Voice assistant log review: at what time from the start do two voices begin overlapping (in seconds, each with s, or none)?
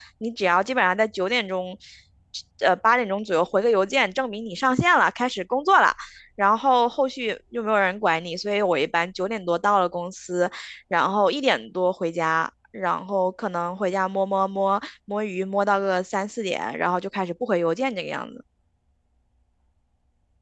none